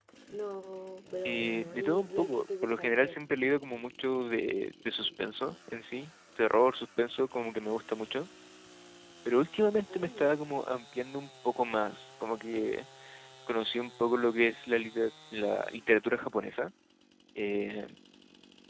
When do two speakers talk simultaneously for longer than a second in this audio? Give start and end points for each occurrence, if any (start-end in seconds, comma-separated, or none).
1.2-3.2